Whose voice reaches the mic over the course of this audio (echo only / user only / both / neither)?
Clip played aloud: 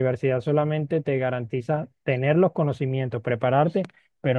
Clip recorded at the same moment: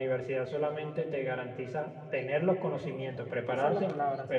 both